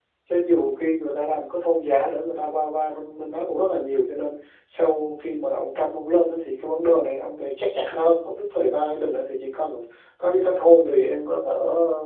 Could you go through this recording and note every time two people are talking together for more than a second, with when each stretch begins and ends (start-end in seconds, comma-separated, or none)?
none